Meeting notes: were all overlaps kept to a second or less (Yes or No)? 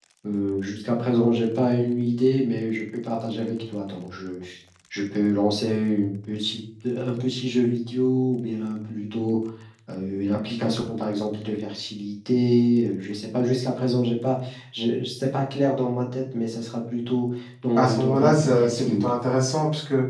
No